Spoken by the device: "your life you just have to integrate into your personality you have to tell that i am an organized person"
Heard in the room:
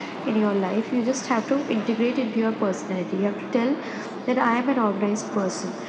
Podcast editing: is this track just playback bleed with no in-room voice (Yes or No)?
Yes